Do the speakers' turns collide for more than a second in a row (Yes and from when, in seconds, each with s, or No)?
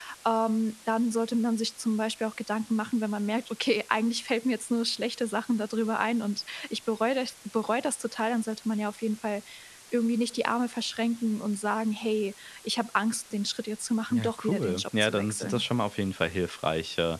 Yes, from 14.1 s